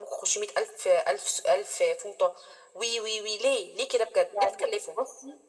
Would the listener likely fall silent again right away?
No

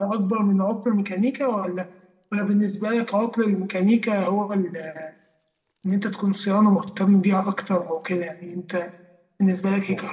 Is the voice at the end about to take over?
No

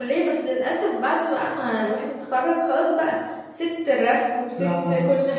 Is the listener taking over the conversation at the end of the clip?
No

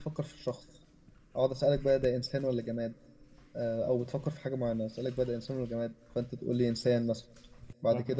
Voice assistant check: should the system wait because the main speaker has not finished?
Yes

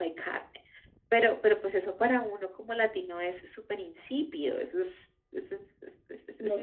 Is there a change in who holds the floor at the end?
Yes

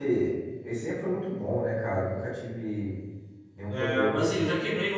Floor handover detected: Yes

